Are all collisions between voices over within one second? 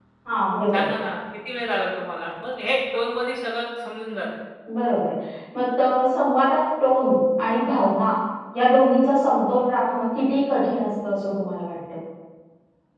Yes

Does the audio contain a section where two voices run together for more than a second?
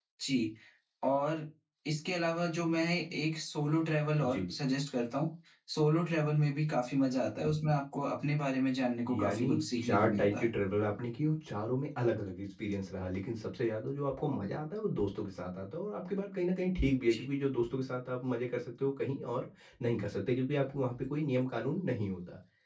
Yes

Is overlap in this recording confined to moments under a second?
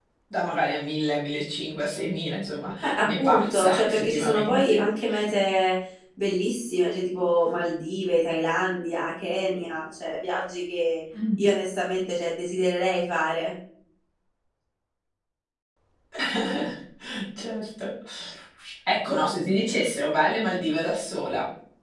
No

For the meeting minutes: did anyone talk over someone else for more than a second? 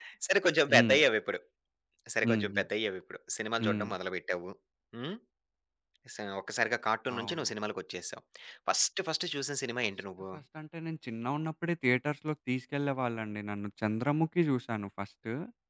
No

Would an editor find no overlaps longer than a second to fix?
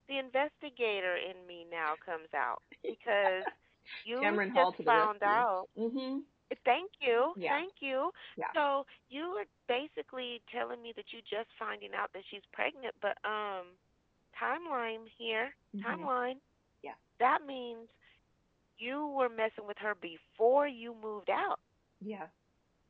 No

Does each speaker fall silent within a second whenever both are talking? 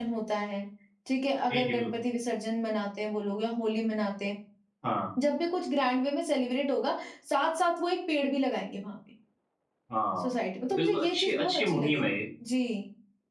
No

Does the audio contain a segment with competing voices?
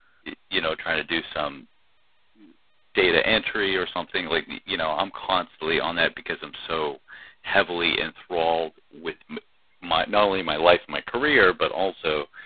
No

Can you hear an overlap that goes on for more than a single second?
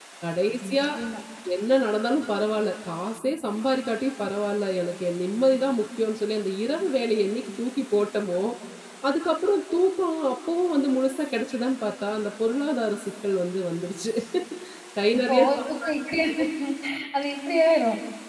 No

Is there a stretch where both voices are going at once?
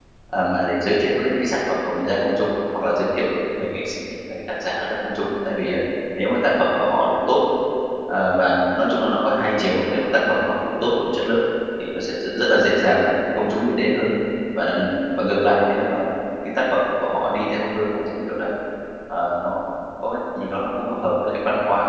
No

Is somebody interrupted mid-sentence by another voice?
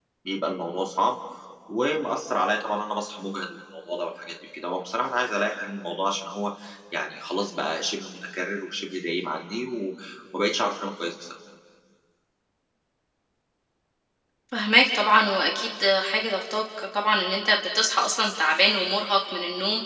No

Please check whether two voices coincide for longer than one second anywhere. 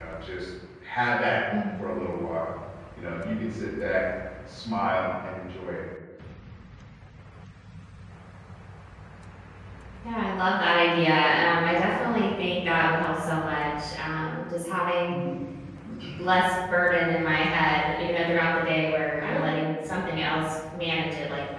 No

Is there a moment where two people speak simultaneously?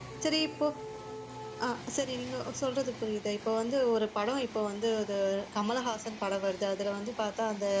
No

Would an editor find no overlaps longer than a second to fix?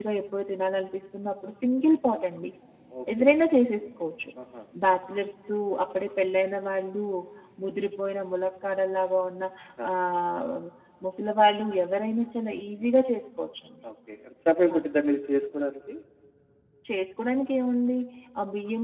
Yes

